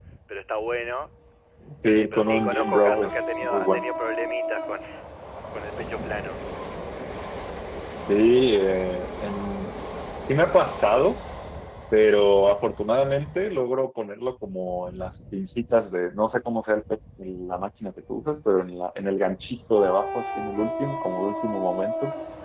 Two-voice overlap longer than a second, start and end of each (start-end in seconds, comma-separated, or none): 1.8-3.8